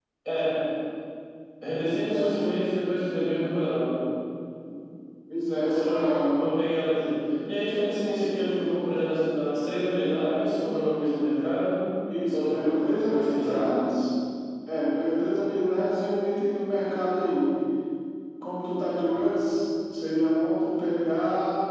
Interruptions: present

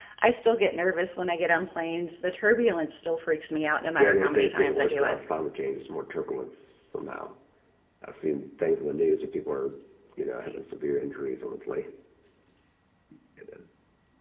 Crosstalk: present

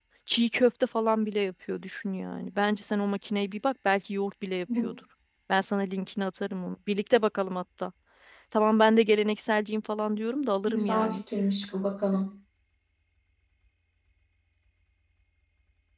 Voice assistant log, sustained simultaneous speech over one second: none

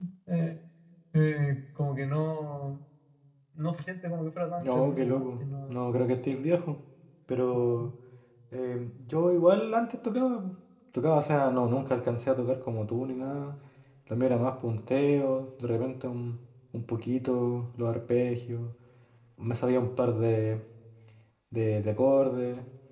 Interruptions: present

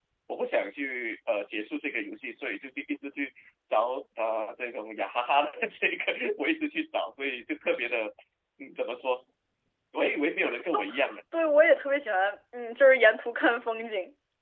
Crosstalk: none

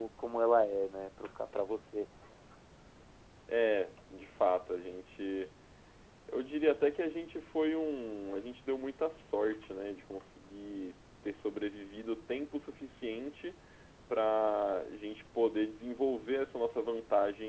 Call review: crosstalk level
none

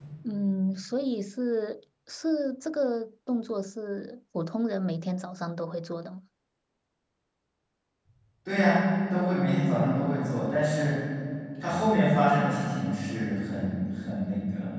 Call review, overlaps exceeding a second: none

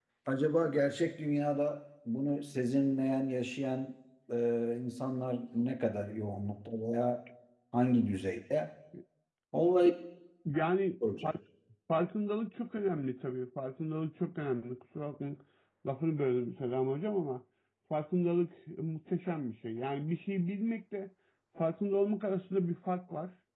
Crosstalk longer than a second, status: none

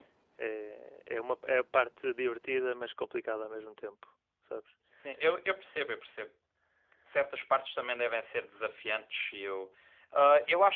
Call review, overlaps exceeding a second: none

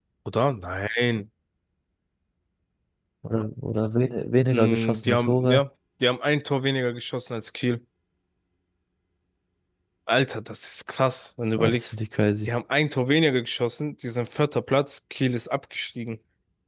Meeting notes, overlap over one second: present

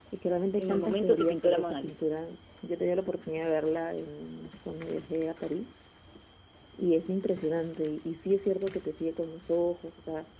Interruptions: present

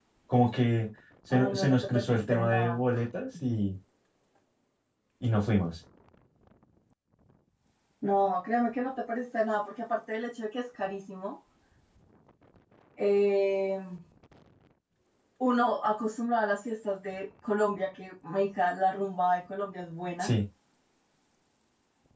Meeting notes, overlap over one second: present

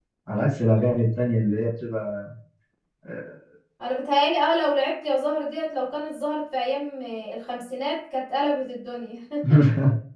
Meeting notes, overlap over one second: none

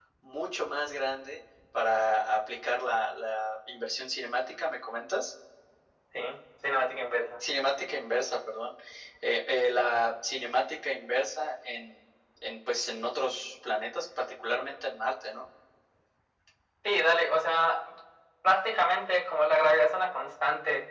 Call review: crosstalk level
none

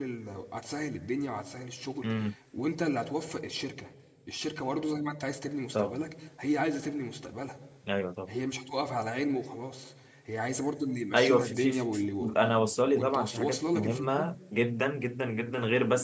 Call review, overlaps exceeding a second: present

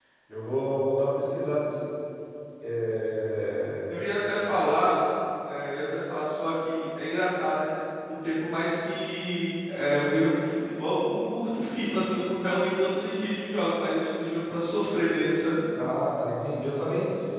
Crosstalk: none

